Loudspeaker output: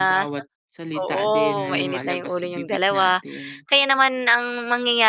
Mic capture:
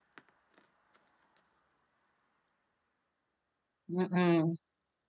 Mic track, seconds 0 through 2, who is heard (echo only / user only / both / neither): neither